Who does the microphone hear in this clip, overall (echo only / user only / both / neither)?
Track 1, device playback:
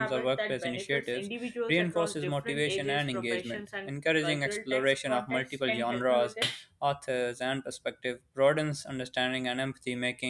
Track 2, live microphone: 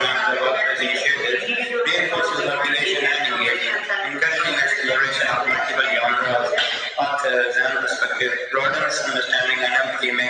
echo only